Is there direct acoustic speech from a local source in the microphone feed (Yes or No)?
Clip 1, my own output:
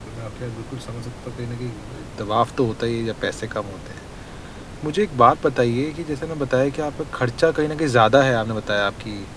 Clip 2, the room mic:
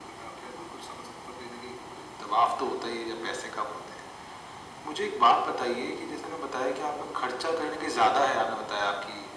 No